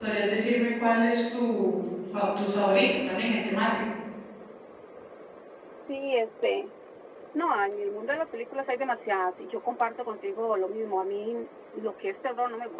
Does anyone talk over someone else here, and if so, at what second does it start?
none

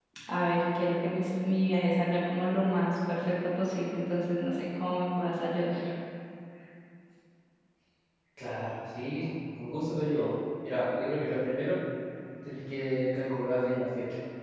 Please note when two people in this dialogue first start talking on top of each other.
none

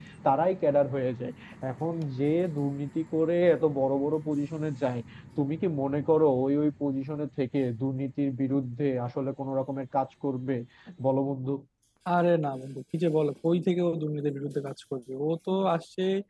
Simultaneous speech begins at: none

